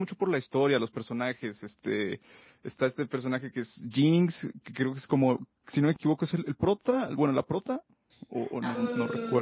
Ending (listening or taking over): taking over